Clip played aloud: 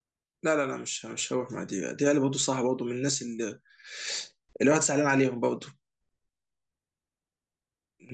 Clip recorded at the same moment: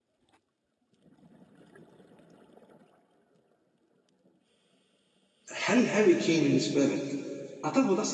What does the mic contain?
user only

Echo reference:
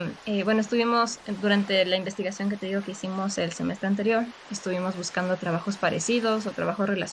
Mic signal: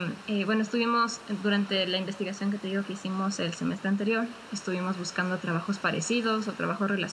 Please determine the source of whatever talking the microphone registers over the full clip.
echo only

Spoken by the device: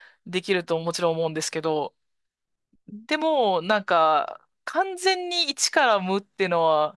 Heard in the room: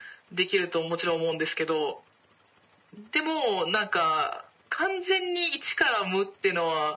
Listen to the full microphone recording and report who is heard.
echo only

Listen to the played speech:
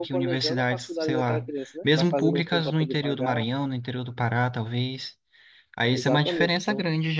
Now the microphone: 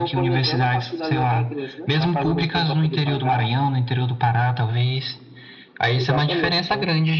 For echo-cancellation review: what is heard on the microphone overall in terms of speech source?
echo only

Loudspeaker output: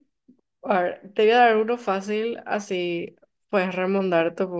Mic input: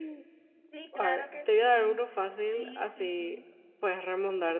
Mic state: both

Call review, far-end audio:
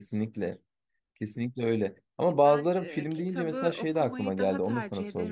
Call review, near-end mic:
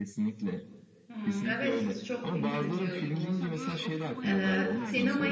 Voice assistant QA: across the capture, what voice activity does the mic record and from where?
both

